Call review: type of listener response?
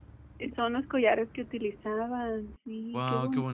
taking over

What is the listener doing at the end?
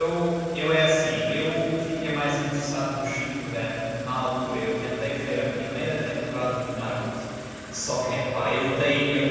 listening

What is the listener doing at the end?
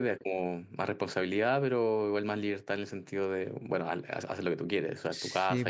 taking over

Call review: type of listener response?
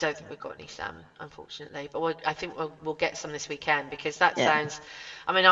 listening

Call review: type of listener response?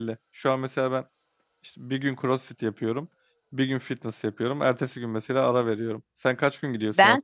taking over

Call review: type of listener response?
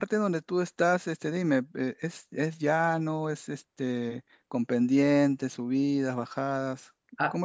taking over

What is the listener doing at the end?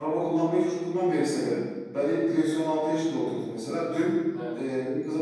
listening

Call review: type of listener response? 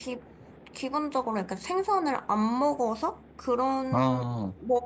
listening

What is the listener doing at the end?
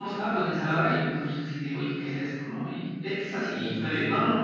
listening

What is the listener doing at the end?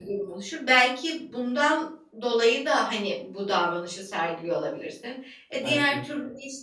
listening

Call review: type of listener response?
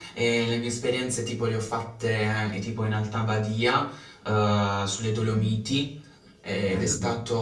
listening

